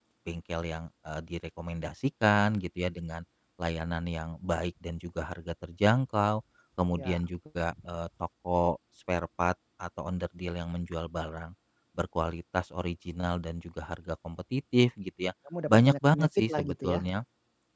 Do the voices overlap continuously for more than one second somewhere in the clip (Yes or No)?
Yes